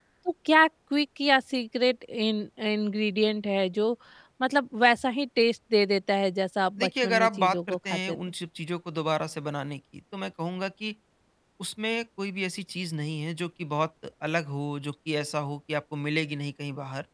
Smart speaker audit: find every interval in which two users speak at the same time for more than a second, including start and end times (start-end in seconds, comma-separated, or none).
6.8-8.2